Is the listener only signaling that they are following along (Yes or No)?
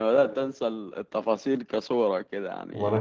Yes